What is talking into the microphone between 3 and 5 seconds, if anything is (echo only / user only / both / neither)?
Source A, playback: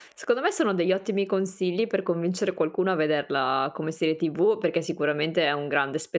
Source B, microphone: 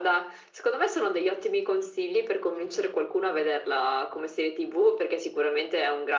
echo only